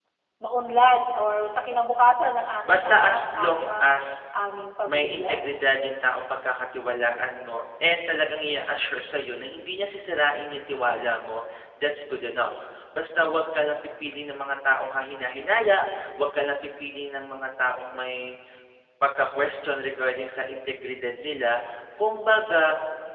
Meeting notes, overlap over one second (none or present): present